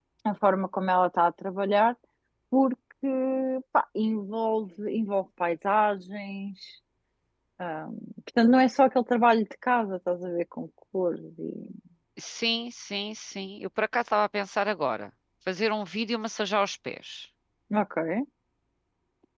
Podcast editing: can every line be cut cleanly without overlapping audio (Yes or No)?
Yes